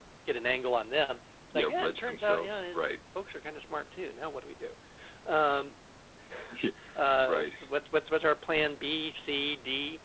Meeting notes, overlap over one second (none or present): present